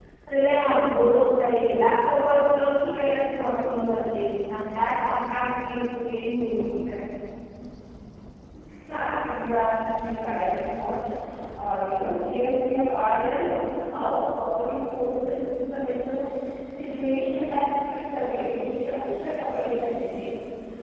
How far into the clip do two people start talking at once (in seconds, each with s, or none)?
none